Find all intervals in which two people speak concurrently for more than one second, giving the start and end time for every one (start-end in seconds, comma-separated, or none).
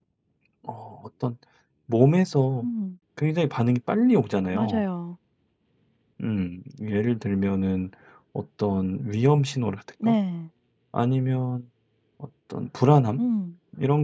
none